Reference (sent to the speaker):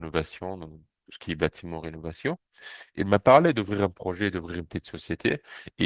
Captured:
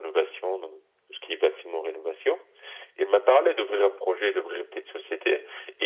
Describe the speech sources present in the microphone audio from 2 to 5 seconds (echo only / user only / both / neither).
echo only